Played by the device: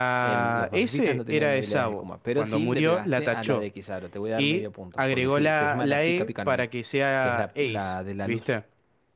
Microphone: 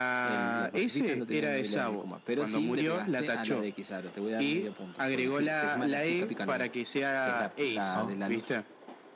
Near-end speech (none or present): present